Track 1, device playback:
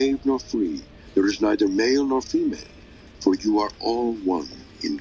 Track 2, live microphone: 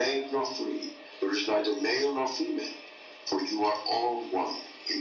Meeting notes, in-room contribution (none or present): none